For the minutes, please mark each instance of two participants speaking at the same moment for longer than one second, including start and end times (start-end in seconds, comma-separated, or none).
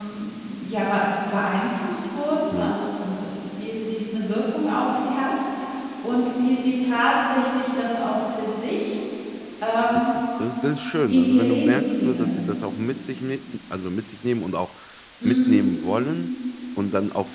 11.1-12.4